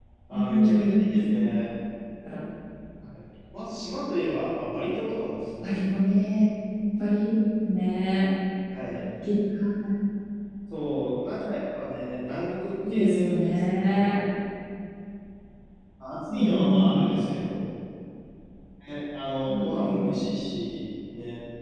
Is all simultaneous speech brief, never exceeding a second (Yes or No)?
No